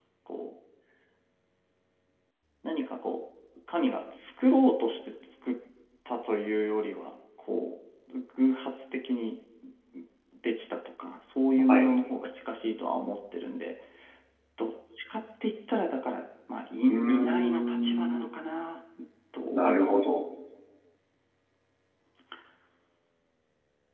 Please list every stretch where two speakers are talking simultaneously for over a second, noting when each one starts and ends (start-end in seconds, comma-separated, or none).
16.9-18.2